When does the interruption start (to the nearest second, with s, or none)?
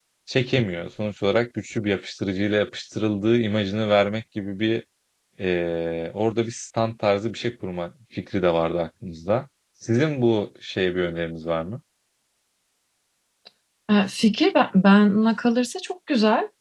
none